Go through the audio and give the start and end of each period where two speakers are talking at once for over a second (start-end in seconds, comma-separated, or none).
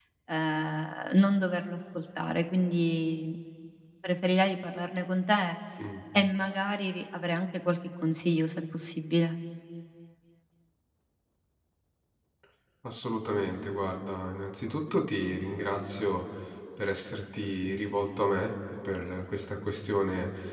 none